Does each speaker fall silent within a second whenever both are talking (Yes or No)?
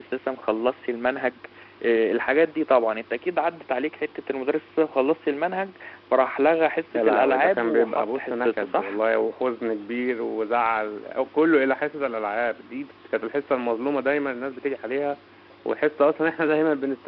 No